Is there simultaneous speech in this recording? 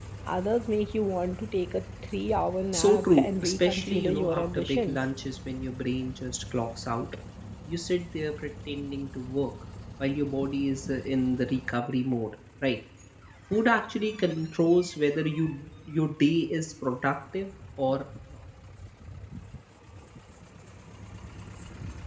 Yes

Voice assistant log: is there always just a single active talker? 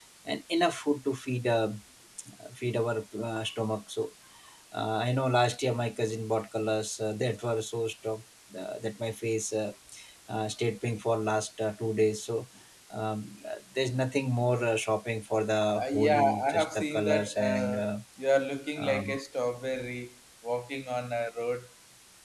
No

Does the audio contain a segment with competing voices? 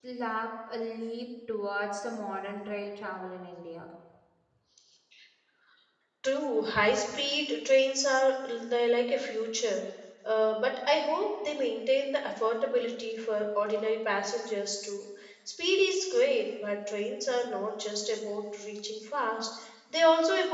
No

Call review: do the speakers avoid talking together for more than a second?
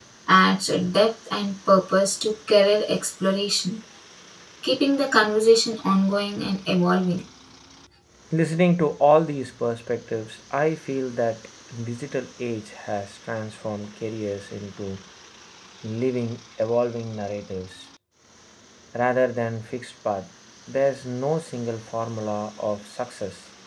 Yes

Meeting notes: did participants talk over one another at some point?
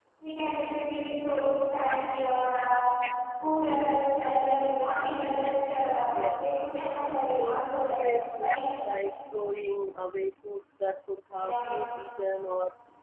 Yes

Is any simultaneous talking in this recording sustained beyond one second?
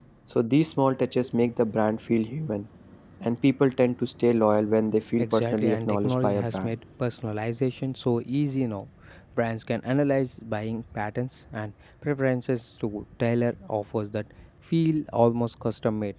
Yes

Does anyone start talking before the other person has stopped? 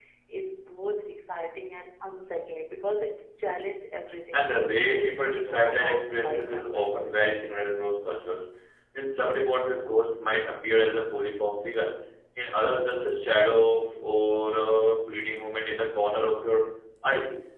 Yes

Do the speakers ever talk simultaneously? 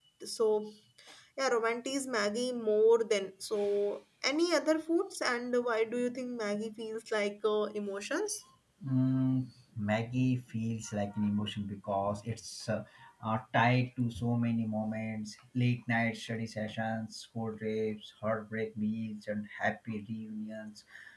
No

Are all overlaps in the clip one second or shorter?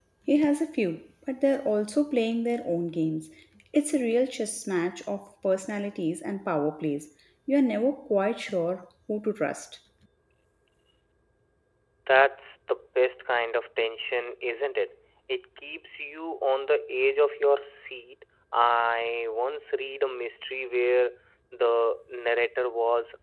Yes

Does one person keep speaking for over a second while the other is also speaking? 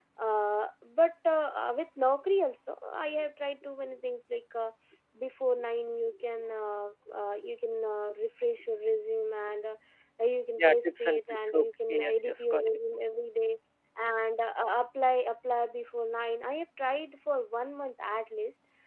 Yes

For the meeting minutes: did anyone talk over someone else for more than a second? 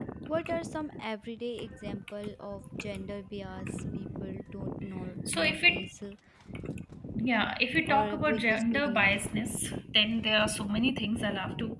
Yes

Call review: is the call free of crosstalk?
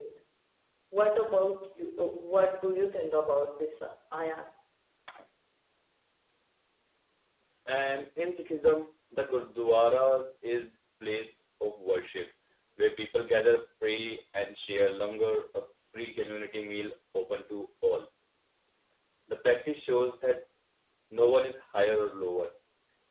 Yes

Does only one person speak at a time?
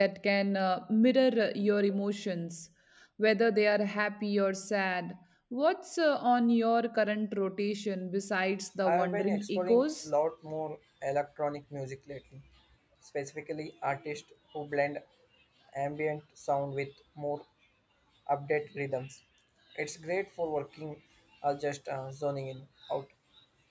No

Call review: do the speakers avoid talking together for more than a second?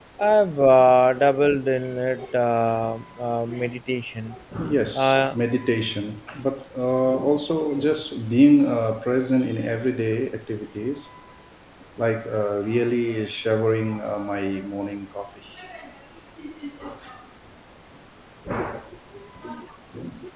Yes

